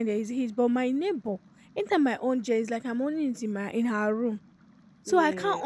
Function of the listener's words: listening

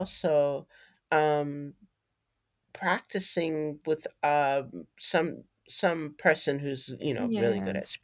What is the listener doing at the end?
listening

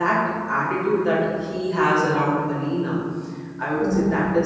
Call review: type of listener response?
listening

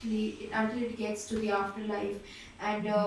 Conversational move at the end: listening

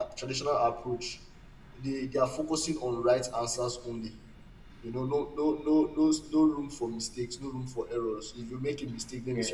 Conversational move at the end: listening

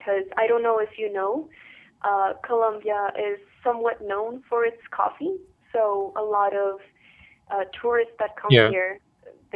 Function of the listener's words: listening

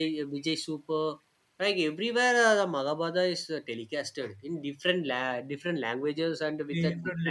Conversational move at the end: taking over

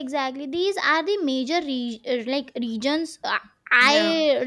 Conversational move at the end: listening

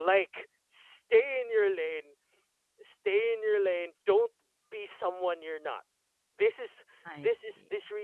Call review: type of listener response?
listening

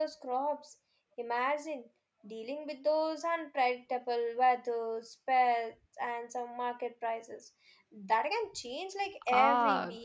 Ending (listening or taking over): taking over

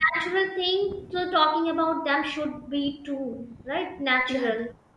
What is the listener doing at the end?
taking over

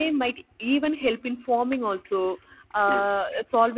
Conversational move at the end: listening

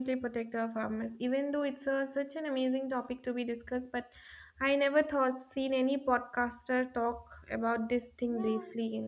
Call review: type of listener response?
taking over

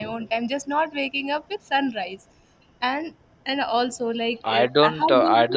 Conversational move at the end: taking over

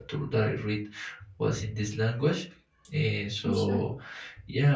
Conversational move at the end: listening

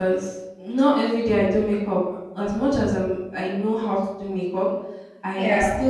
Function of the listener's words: listening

